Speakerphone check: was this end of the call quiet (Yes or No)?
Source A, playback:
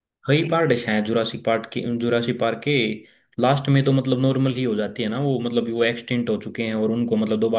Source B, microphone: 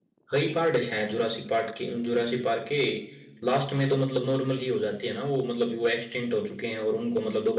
Yes